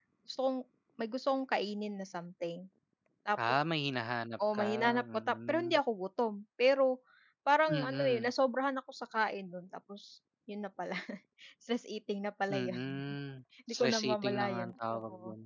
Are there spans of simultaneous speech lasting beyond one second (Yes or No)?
Yes